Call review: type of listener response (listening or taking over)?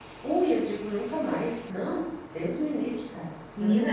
taking over